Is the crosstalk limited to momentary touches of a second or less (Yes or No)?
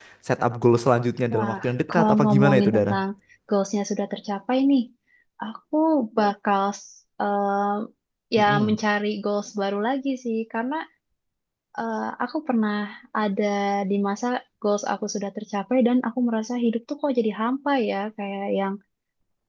No